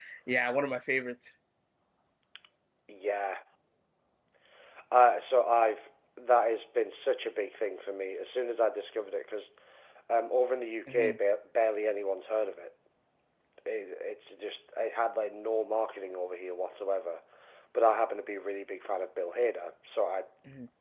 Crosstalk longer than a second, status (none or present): none